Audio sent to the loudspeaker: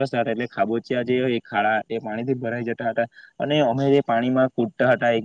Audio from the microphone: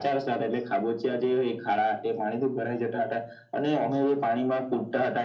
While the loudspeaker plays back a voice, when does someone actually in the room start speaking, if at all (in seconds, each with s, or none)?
none